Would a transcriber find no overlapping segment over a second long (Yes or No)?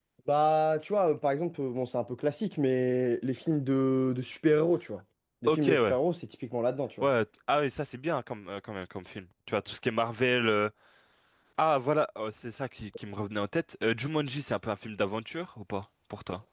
Yes